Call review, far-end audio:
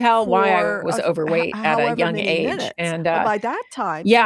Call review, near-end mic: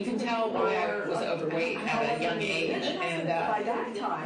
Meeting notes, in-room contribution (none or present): present